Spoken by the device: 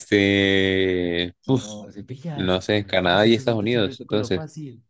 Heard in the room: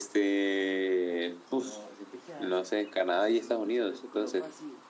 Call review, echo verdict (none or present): present